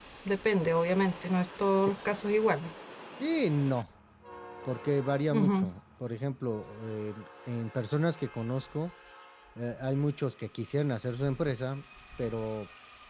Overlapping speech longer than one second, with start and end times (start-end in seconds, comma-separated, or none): none